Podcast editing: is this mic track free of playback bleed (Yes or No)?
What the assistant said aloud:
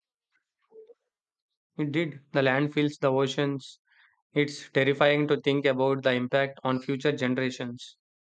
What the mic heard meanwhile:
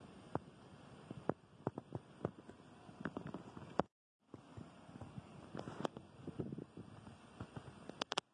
Yes